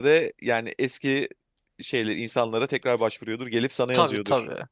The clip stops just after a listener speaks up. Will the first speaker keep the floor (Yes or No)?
No